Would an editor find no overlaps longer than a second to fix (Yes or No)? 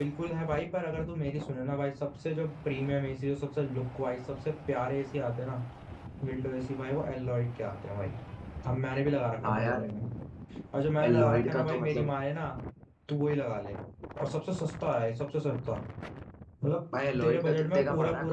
No